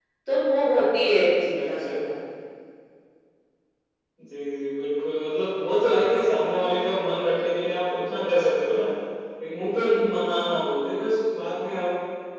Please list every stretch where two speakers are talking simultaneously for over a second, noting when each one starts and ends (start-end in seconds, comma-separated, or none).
none